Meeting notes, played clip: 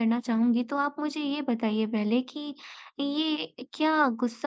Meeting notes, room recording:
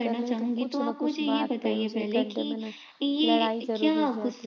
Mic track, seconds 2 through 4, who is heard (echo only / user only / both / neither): both